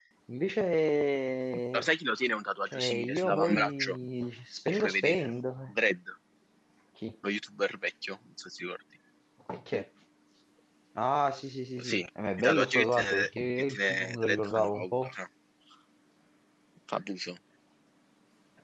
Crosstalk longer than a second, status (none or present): present